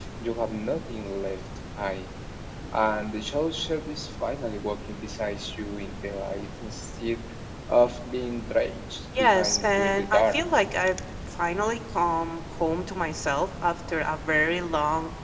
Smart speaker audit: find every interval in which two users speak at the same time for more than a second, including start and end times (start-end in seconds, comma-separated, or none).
9.2-10.4